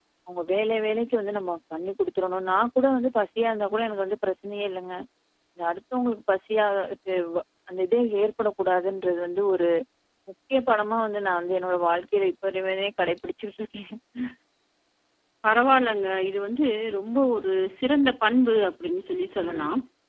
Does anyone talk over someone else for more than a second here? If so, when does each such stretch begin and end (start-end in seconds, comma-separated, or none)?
none